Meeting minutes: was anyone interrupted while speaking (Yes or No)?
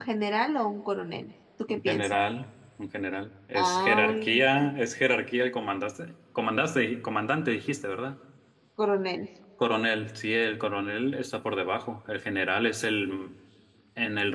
Yes